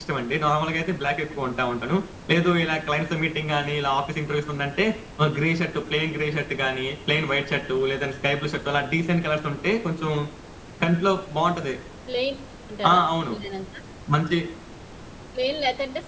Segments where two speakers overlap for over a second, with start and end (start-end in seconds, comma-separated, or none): none